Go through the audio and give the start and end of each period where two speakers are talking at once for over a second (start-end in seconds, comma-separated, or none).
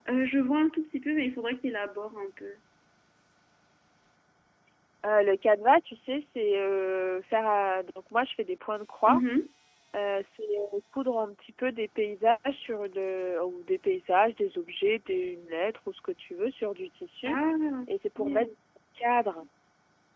none